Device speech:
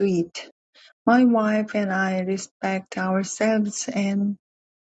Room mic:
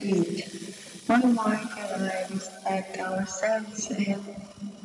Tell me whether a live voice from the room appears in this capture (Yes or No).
No